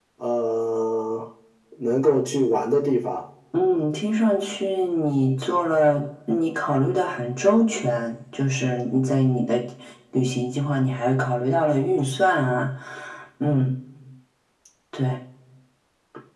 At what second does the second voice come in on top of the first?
none

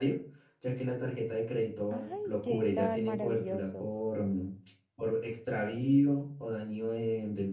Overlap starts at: 1.9 s

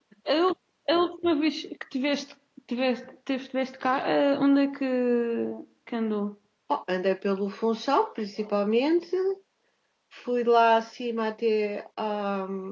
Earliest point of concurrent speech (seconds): none

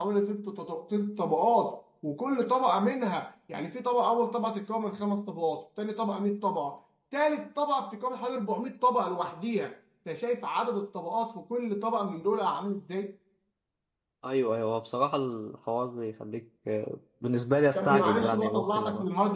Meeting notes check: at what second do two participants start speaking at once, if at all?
17.8 s

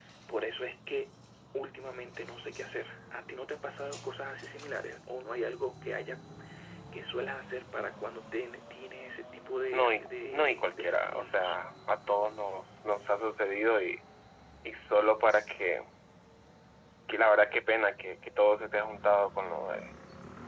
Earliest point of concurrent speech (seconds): 9.7 s

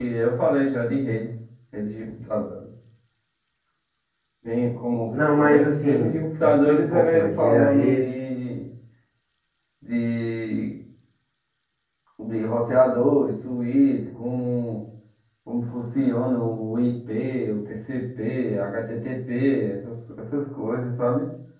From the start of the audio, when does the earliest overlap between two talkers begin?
5.4 s

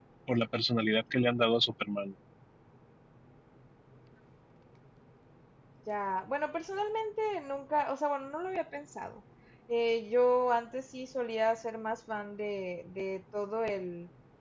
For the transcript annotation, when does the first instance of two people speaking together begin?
none

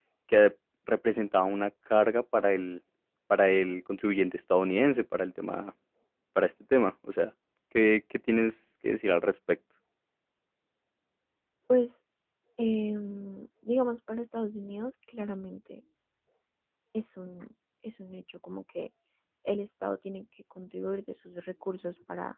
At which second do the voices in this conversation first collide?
none

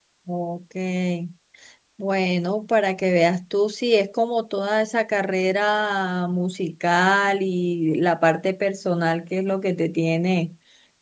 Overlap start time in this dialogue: none

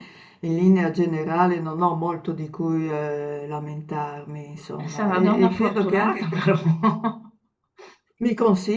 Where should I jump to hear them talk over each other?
4.8 s

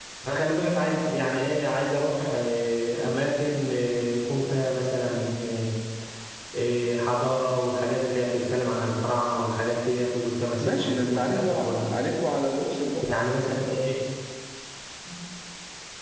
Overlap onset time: 10.6 s

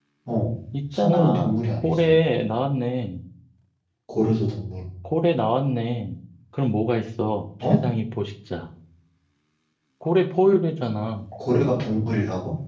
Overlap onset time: 1.0 s

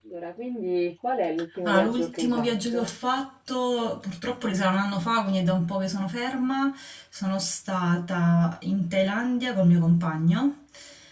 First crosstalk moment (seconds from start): 1.6 s

